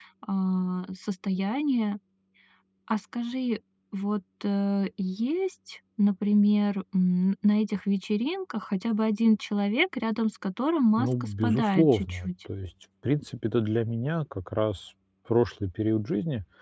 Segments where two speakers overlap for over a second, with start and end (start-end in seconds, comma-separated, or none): 11.0-12.3